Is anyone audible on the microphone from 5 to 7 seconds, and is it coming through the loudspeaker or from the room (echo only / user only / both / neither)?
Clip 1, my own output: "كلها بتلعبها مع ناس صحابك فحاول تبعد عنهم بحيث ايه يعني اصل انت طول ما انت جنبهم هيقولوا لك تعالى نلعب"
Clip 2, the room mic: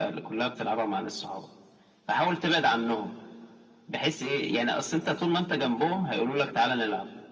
echo only